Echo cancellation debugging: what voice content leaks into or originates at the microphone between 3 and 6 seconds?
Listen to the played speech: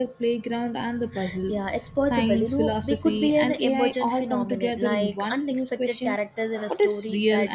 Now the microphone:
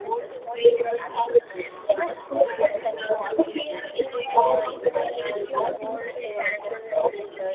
both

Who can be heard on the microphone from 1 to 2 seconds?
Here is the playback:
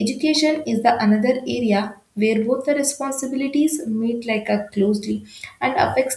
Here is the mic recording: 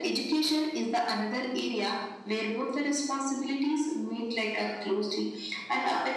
echo only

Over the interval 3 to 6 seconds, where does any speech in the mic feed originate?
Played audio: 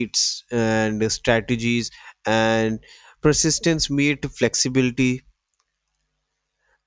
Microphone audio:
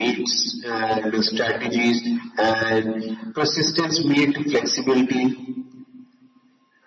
echo only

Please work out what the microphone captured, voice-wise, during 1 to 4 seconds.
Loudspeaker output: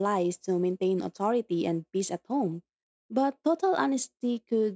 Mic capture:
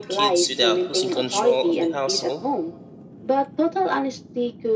both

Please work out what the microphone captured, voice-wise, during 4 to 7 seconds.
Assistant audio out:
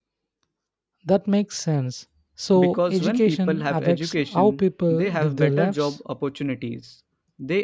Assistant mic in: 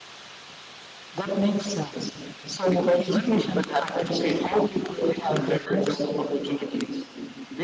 echo only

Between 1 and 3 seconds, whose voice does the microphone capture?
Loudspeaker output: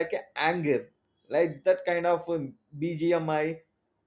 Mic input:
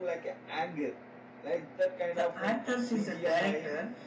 both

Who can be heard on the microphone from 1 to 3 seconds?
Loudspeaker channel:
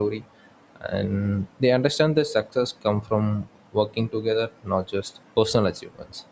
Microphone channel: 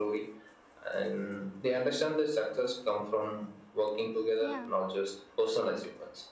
echo only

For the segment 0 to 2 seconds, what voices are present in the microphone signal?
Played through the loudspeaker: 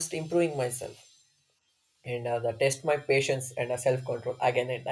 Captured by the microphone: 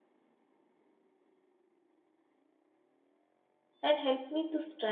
neither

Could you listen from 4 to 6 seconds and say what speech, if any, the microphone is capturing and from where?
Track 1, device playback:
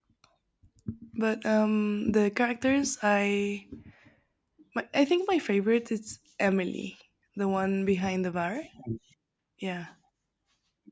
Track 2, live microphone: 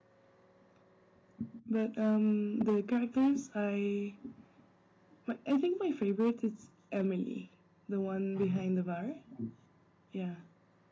echo only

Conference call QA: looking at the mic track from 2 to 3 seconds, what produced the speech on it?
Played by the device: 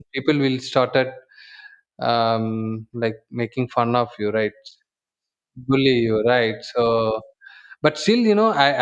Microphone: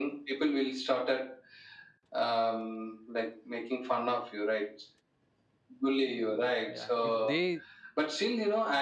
echo only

